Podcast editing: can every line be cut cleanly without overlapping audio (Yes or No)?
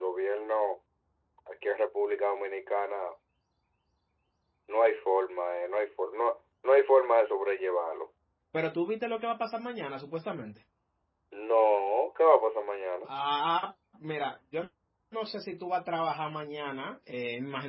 Yes